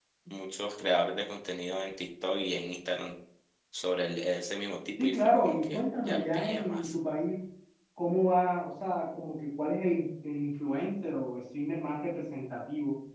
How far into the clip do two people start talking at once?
5.0 s

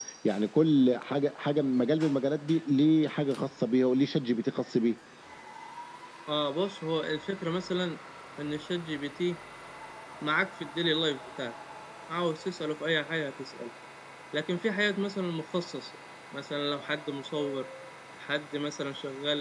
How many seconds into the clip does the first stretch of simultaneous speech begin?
none

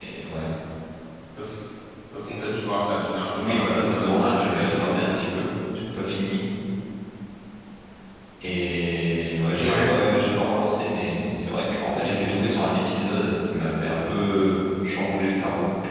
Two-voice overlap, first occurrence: 3.4 s

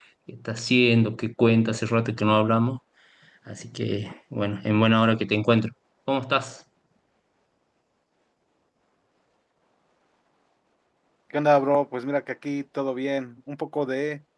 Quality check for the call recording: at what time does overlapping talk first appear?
none

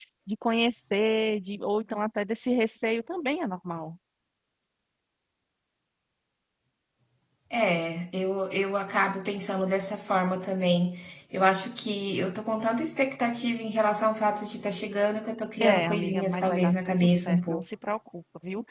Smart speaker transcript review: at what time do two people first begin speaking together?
15.6 s

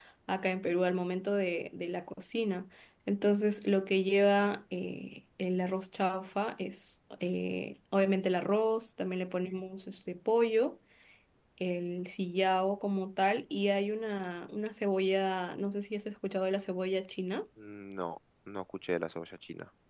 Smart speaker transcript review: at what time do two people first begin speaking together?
none

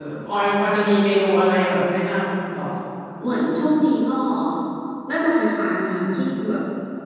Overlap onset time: none

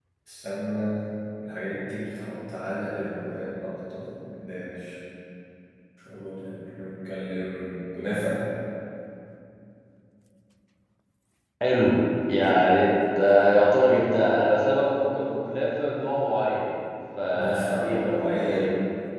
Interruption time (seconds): 17.3 s

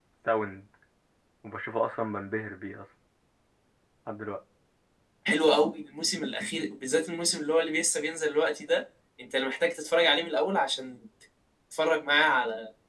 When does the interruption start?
none

